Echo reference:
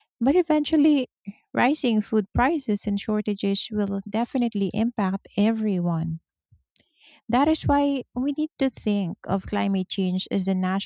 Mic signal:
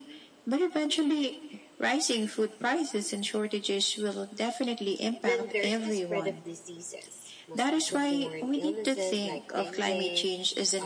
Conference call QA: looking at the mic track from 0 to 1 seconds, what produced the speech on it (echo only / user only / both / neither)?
echo only